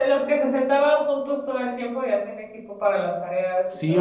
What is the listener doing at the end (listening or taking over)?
taking over